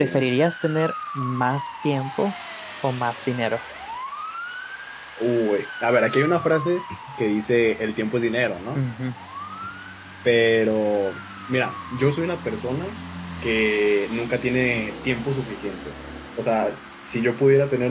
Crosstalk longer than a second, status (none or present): none